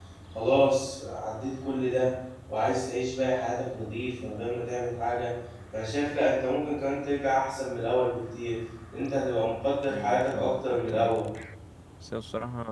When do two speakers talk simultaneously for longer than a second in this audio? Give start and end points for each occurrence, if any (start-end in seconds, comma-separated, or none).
9.9-11.1